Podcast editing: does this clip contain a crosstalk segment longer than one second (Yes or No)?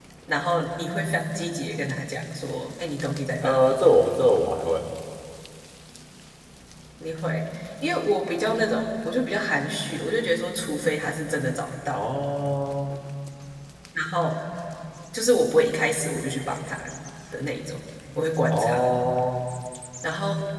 No